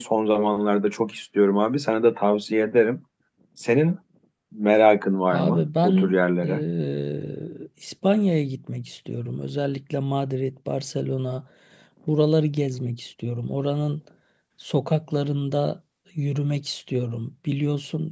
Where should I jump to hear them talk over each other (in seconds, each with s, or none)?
5.3 s